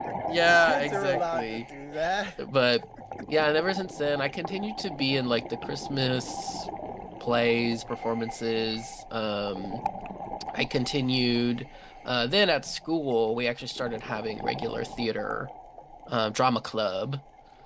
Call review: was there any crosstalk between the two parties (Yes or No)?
Yes